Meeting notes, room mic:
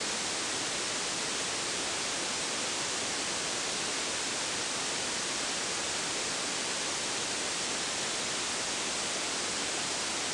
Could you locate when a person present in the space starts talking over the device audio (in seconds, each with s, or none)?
none